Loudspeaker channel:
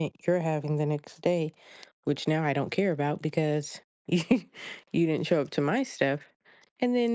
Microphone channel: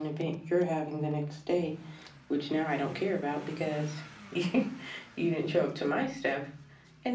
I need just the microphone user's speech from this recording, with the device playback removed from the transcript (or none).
none